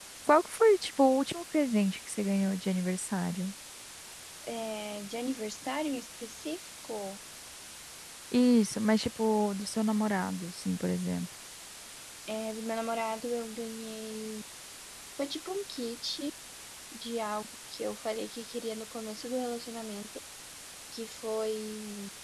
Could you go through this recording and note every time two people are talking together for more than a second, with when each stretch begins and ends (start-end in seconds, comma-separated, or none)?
none